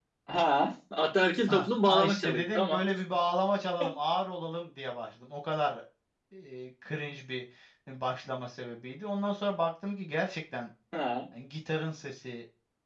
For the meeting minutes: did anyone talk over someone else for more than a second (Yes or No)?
Yes